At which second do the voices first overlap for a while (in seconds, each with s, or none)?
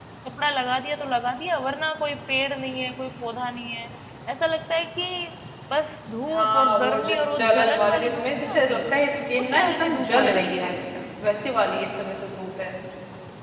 6.3 s